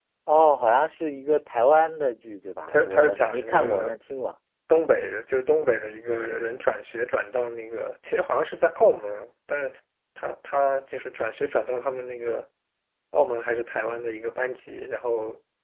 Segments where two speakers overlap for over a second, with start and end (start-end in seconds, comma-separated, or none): 2.7-3.9